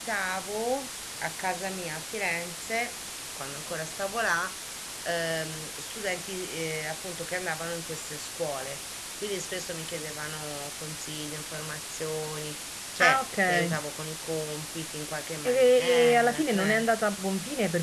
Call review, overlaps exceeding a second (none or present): present